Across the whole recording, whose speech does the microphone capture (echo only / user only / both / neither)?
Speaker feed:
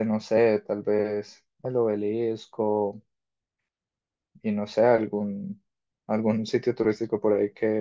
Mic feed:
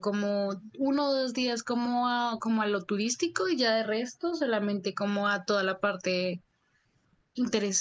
user only